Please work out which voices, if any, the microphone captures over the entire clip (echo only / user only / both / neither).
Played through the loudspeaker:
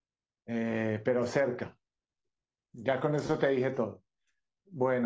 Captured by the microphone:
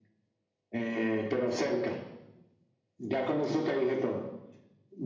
echo only